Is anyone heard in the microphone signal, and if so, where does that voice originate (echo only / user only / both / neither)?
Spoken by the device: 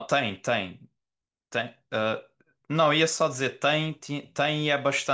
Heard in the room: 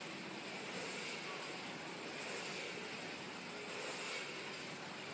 neither